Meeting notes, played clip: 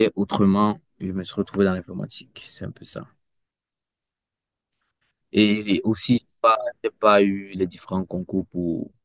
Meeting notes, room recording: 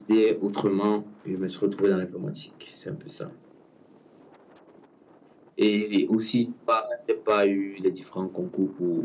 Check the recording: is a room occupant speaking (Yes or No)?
No